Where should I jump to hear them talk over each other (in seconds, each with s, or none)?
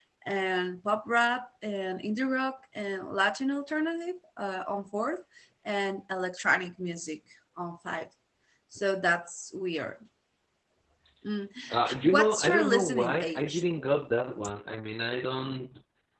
11.7 s